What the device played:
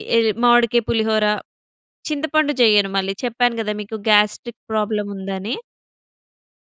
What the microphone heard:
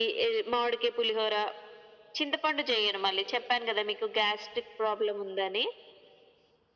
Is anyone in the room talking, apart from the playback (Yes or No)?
No